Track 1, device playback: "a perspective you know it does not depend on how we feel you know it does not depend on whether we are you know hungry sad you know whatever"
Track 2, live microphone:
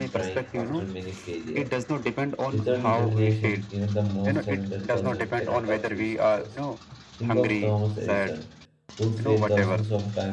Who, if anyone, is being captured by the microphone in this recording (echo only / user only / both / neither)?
both